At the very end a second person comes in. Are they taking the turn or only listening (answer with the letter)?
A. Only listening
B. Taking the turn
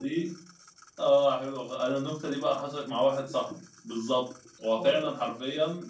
A